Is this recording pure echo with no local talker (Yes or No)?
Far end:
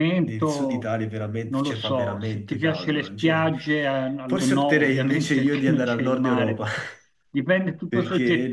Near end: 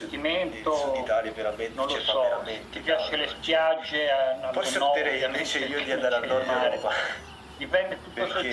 No